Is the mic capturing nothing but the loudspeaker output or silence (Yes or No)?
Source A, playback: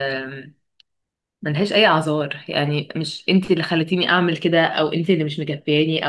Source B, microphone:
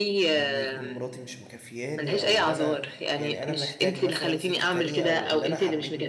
No